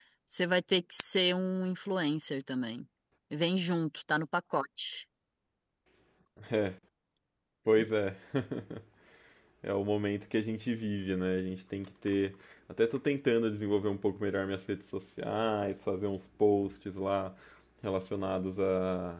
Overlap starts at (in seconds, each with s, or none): none